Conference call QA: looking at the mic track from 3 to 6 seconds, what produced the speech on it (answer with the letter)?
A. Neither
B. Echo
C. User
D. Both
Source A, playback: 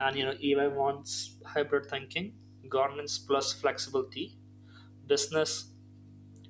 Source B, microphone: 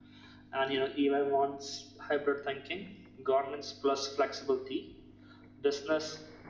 B